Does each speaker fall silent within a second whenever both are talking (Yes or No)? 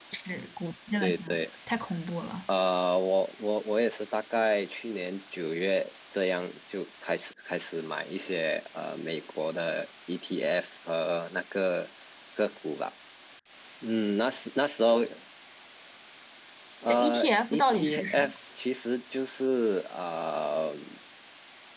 No